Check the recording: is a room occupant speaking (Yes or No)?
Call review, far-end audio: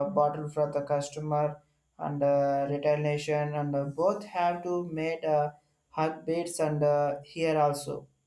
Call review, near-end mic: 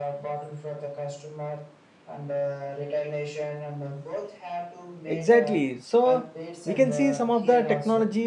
Yes